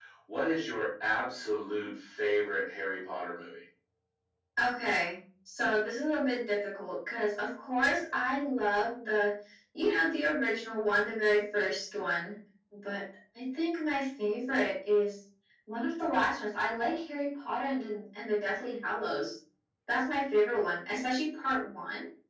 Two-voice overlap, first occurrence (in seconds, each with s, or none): none